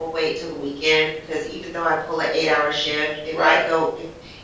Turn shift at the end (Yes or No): No